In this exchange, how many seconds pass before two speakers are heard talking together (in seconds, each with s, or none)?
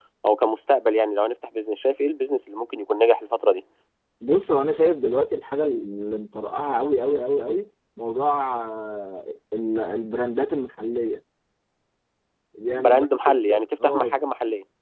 12.8 s